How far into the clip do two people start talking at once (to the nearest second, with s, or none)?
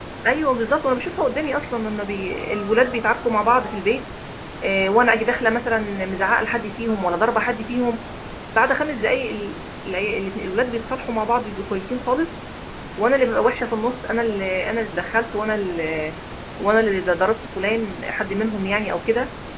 none